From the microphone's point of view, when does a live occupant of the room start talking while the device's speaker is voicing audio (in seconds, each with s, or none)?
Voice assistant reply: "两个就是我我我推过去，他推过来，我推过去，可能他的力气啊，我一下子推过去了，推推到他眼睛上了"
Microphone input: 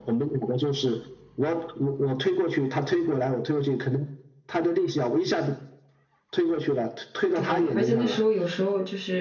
7.3 s